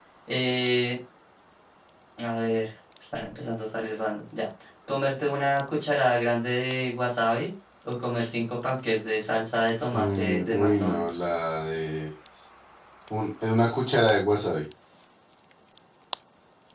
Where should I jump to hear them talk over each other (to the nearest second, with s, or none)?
10 s